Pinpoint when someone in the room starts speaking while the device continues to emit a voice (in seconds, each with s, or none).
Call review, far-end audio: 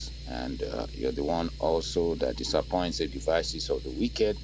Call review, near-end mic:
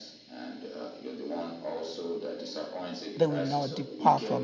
3.2 s